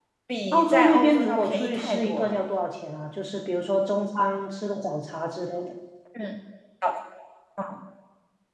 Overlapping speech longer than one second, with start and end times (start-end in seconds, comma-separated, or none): 0.5-2.5